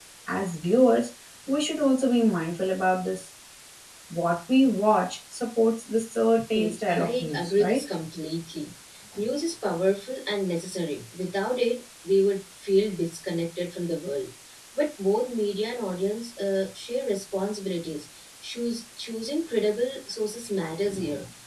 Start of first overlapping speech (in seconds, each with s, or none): 6.6 s